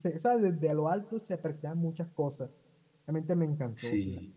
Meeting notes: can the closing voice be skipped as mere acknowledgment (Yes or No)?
No